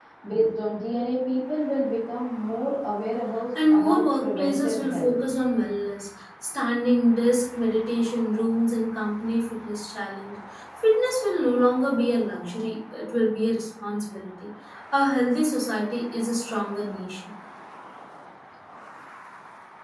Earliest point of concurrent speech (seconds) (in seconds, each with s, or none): 3.6 s